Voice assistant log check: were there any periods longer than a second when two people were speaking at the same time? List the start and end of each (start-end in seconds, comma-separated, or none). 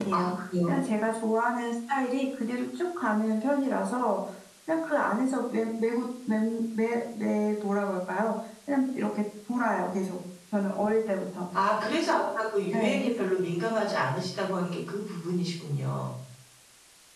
none